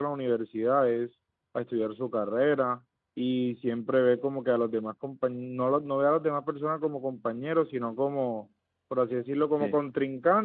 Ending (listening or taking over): listening